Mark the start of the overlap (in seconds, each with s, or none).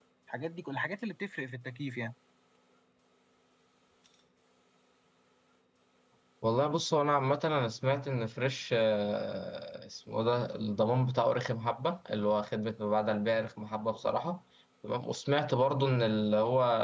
none